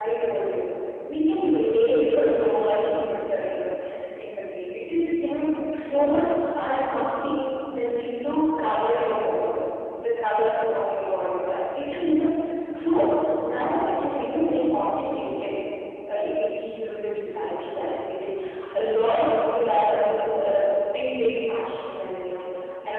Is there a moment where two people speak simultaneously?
No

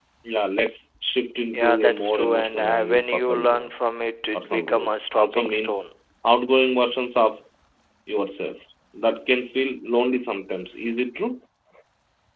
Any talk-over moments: Yes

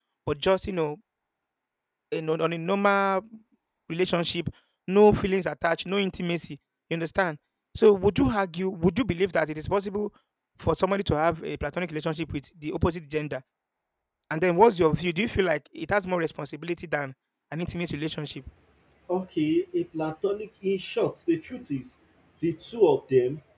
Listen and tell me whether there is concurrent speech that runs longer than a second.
No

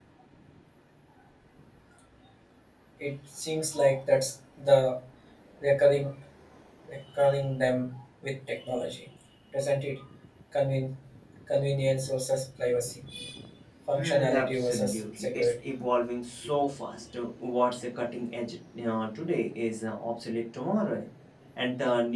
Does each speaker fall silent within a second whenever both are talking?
No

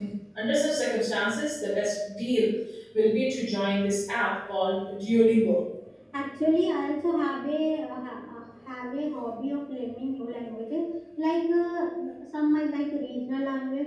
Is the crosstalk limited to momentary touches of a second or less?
Yes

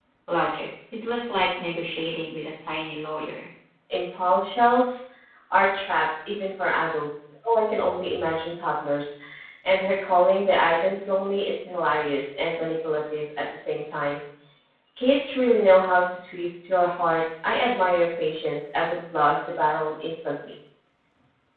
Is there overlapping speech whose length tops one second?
No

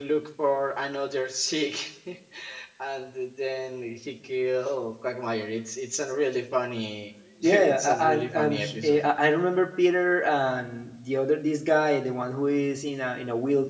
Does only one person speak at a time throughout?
No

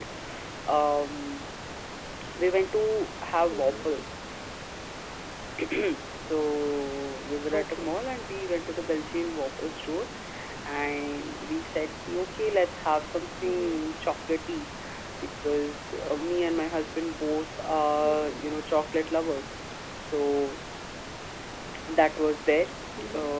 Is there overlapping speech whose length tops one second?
No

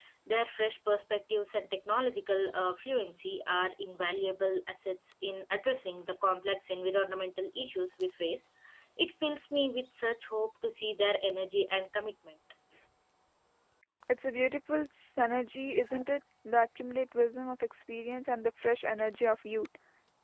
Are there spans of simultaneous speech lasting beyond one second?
No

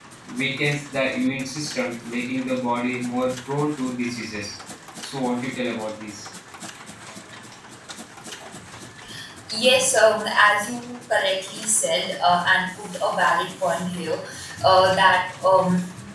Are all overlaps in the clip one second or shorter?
Yes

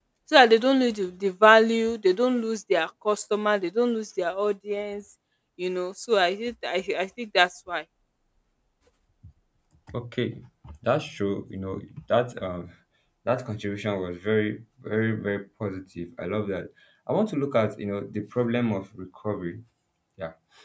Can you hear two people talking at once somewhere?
No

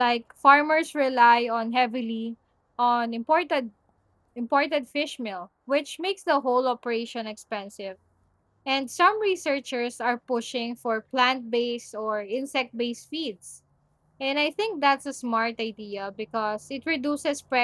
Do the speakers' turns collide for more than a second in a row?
No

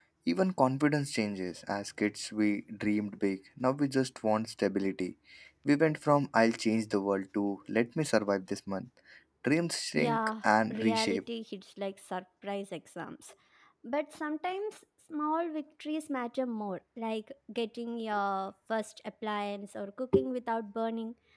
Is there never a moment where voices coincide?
No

